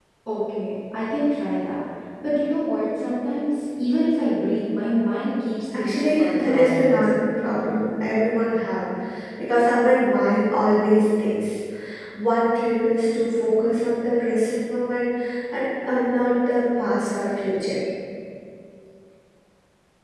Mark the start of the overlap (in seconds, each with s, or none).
5.7 s